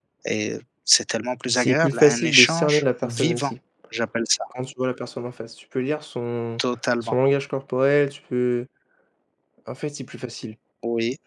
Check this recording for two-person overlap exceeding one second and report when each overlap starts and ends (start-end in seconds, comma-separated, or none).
1.5-3.5